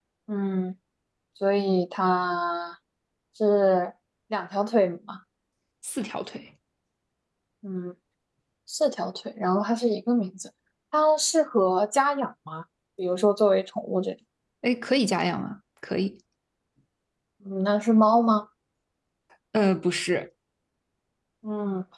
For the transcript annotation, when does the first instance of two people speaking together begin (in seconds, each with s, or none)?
none